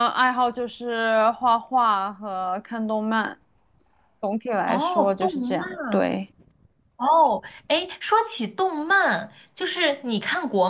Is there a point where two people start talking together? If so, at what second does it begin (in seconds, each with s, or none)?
4.7 s